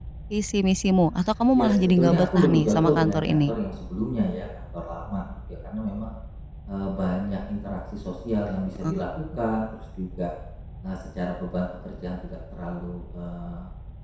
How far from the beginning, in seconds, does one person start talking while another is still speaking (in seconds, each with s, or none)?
1.6 s